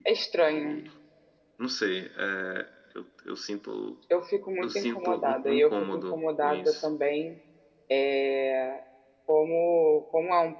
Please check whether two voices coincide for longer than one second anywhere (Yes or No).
Yes